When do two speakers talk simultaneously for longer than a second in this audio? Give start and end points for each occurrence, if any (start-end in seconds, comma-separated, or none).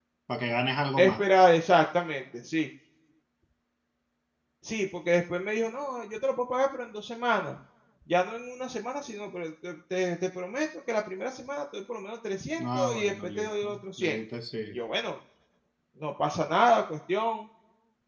12.6-14.2